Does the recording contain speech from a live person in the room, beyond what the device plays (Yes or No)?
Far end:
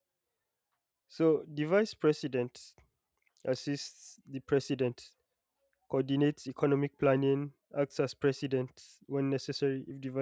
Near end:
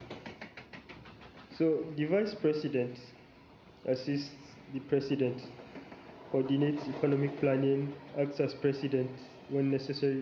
No